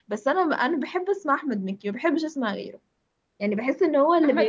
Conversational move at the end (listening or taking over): taking over